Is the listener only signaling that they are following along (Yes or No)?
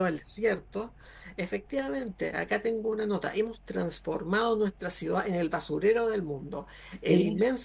Yes